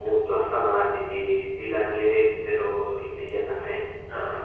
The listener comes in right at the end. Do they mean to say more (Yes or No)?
Yes